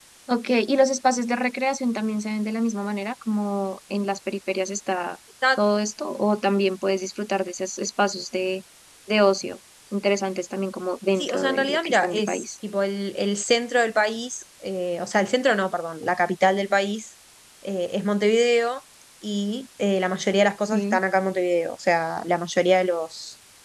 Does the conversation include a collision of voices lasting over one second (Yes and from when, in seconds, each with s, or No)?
Yes, from 11.2 s